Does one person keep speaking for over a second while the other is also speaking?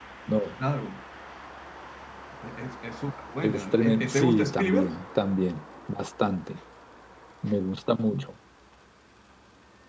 Yes, from 3.4 s

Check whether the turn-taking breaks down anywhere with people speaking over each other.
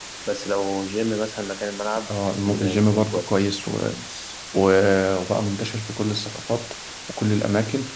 Yes, from 2.1 s

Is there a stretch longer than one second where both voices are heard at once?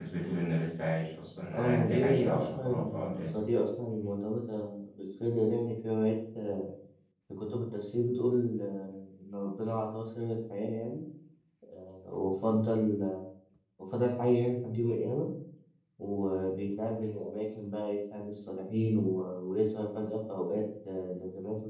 Yes, from 1.5 s

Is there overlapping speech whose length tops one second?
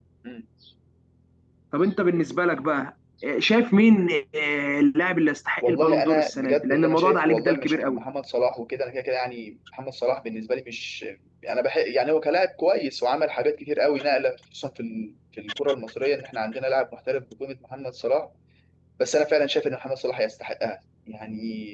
Yes, from 5.6 s

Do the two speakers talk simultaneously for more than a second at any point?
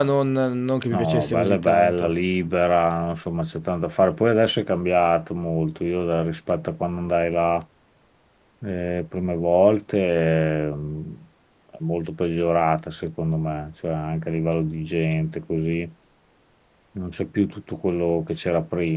Yes, from 0.9 s

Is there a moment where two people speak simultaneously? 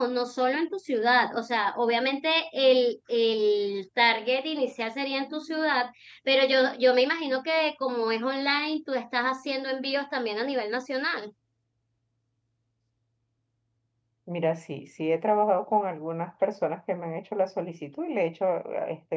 No

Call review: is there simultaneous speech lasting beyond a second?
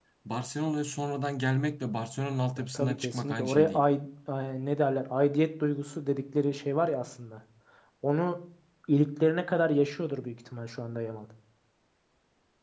Yes, from 2.6 s

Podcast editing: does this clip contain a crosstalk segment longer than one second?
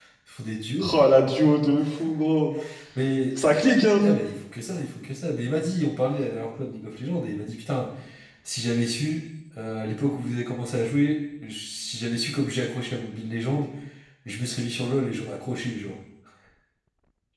No

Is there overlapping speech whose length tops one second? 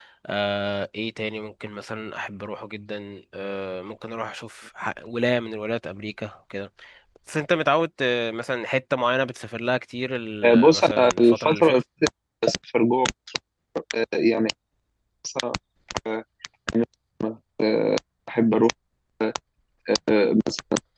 Yes, from 10.4 s

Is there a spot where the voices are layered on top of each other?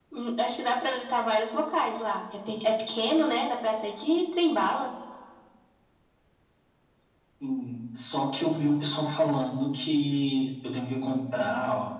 No

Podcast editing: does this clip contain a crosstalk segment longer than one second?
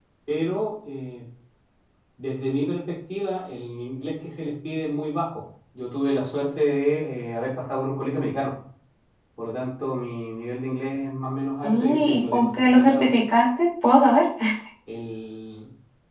Yes, from 11.6 s

